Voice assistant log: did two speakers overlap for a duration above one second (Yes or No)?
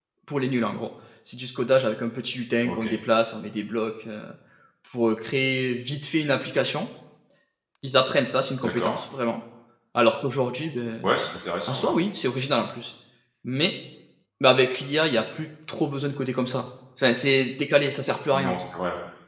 No